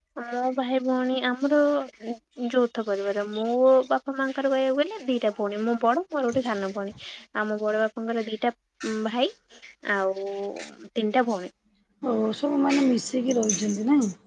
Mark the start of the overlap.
none

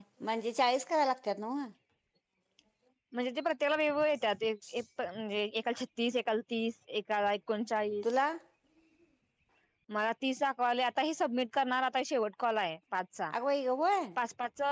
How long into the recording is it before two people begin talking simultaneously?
none

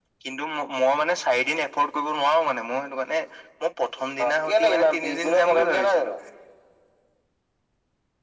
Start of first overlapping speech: 4.2 s

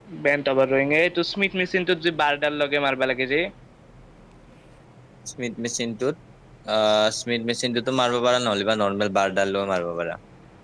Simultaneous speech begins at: none

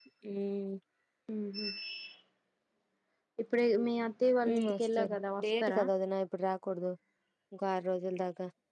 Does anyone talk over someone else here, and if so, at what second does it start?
4.4 s

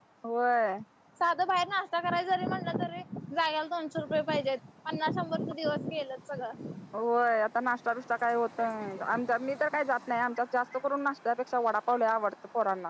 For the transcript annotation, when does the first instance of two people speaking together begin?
none

